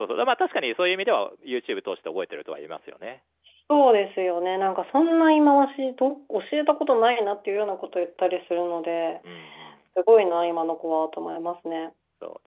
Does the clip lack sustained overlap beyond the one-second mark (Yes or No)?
Yes